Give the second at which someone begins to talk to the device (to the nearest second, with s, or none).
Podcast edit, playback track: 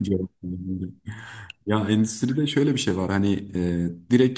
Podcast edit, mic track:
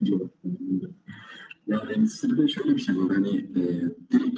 none